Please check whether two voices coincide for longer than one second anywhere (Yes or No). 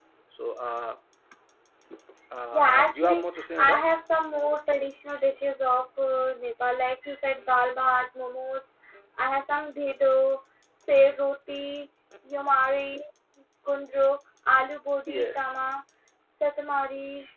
Yes